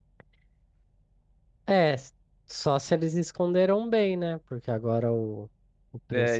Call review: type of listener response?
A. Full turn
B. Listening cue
B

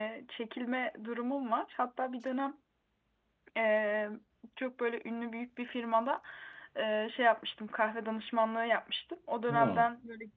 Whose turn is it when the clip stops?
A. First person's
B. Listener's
A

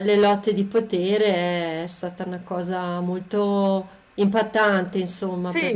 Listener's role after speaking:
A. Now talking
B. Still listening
A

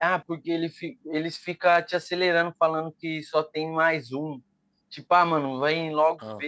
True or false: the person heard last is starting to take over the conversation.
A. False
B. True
A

